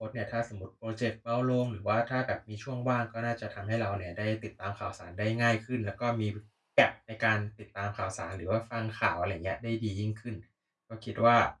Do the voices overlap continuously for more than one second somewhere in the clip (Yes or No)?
No